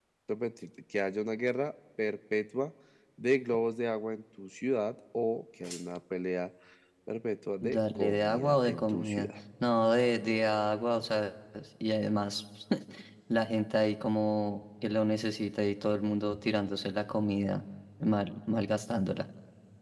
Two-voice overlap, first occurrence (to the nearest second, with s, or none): 8 s